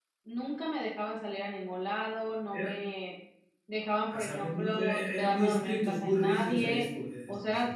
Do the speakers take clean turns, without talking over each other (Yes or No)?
No